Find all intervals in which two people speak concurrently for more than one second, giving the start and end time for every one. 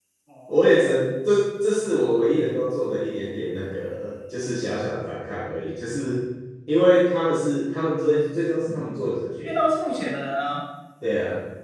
none

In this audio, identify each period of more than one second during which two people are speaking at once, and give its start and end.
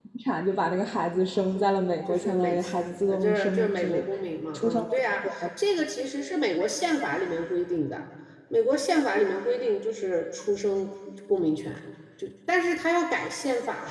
2.1-4.1

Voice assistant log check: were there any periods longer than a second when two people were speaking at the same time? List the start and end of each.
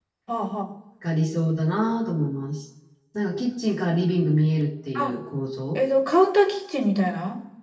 none

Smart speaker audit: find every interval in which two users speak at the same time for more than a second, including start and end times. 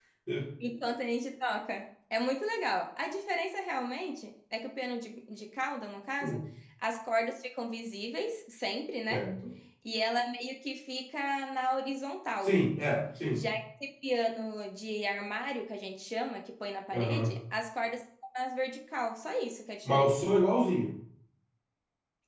none

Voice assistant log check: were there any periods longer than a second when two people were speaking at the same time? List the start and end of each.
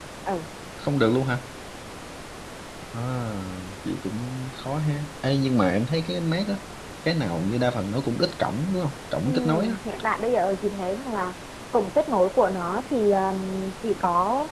none

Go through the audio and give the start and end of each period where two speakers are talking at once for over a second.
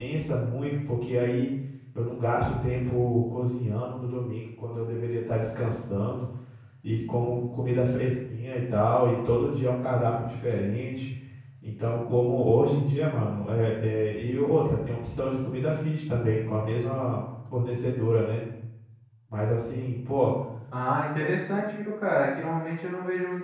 none

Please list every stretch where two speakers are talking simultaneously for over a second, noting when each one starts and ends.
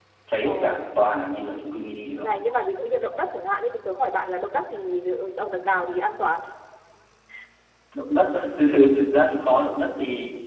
none

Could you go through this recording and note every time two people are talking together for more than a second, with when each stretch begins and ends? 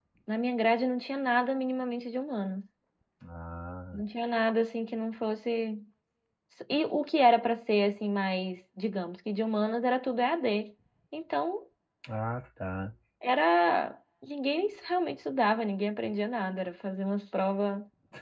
none

